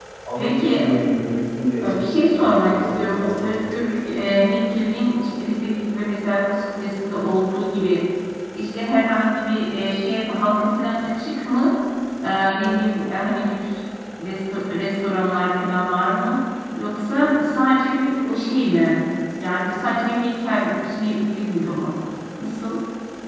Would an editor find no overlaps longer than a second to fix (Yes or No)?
No